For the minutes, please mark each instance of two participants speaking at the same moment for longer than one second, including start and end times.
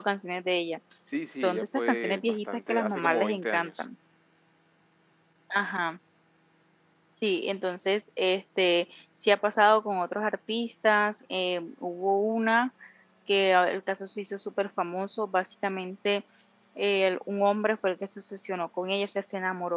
1.4-3.8

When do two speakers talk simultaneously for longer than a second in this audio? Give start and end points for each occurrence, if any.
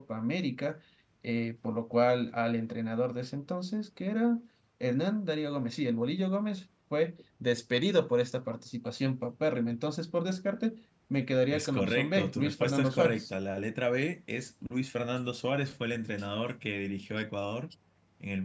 11.5-13.3

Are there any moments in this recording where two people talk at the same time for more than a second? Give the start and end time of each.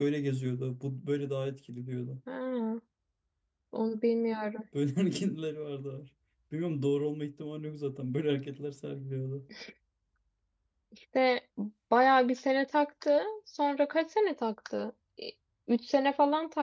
none

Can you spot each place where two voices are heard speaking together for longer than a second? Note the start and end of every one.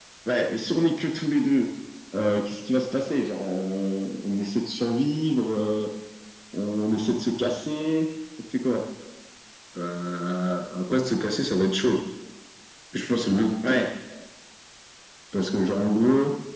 none

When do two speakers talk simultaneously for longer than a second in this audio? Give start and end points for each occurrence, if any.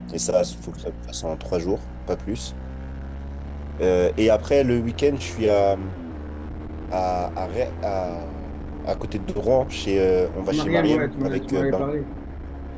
10.5-11.8

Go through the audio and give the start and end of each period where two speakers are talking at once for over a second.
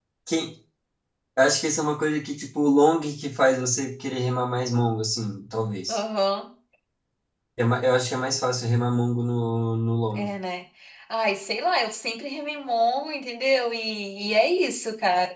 none

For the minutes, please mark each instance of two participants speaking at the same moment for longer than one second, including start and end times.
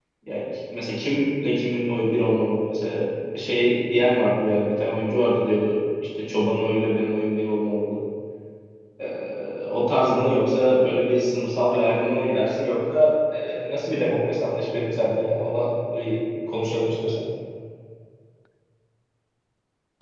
none

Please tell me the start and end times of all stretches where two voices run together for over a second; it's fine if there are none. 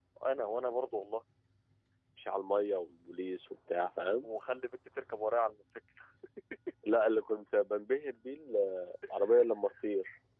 none

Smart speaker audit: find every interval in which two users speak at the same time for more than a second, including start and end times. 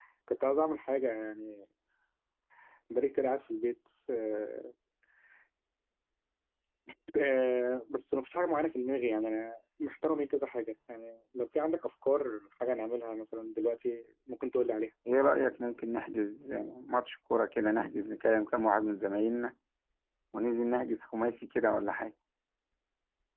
none

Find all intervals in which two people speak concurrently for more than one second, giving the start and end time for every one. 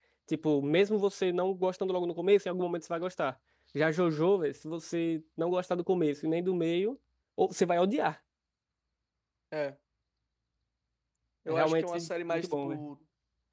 11.5-12.8

